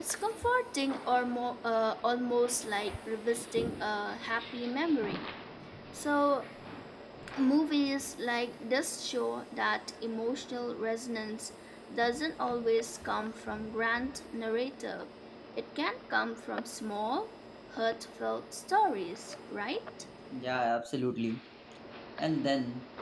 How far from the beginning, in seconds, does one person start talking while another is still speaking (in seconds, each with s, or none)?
none